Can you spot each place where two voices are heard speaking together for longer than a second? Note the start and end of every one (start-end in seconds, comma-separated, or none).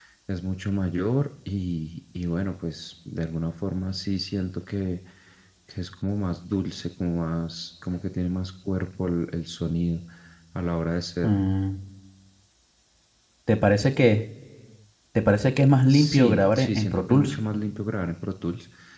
15.9-17.4